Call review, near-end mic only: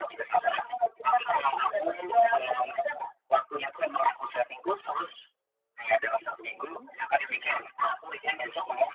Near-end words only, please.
mhm.

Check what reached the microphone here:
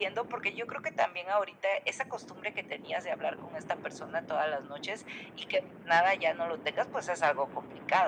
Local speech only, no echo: none

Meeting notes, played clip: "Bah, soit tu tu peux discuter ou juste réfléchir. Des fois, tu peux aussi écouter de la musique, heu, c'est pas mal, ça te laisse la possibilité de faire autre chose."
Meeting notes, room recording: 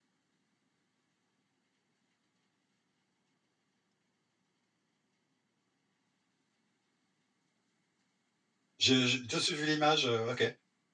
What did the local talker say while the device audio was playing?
Je je je suis vu l'image, heu, OK.

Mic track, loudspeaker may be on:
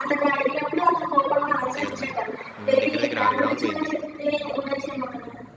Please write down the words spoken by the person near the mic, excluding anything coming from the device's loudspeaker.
అంతే గదా మరి. హ్మ్. దగ్గర దగ్గర 6 గ్రాములు బోయింది.

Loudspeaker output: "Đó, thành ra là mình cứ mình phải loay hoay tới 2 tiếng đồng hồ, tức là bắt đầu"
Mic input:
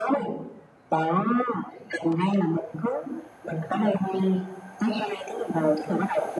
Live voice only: none

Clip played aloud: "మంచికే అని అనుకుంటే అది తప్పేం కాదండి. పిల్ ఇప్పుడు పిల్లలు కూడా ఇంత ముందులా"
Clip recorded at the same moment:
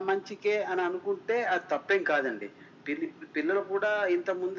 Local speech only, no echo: none

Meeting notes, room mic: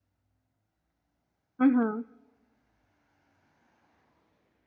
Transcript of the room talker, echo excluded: Uhum.

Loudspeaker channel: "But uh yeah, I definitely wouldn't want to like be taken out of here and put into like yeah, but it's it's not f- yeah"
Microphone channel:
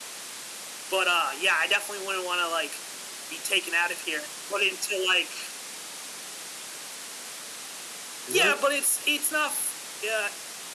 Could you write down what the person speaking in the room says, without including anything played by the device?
Hello?

